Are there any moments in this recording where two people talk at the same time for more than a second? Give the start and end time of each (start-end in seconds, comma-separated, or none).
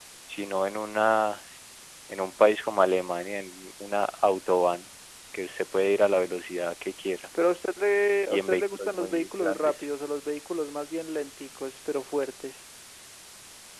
8.3-9.9